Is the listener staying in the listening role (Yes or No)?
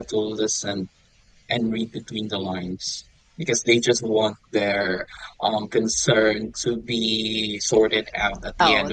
No